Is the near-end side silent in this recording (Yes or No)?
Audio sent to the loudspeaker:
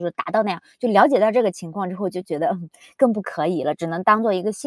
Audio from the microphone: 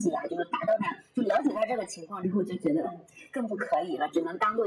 Yes